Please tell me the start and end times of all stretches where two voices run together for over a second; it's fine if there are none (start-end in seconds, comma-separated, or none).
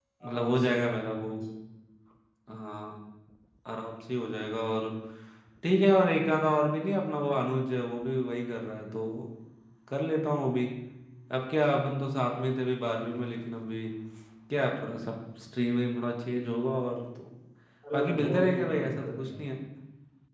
17.9-19.3